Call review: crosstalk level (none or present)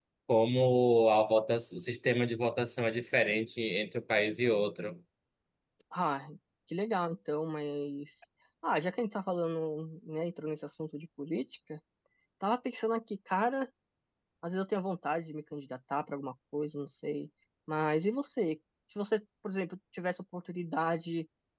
none